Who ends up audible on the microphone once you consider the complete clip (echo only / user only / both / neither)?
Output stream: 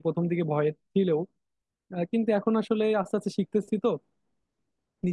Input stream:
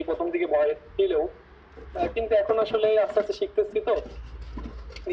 echo only